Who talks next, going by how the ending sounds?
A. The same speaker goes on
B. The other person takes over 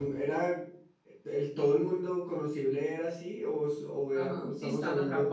B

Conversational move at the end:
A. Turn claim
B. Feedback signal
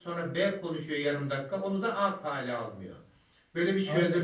A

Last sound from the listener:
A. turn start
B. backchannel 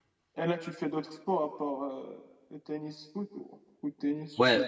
A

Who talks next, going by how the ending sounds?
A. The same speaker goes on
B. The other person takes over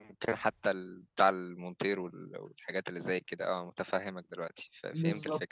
B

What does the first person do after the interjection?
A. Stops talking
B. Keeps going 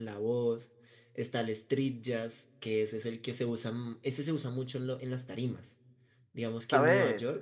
B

